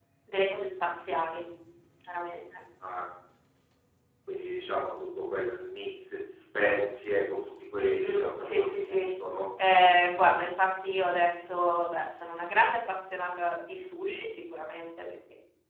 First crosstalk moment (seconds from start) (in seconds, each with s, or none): 7.8 s